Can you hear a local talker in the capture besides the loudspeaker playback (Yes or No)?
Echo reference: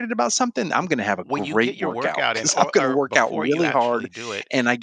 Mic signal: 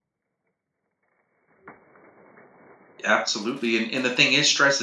Yes